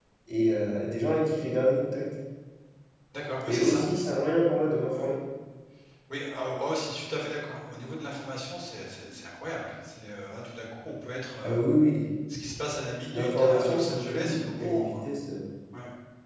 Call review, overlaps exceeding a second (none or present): present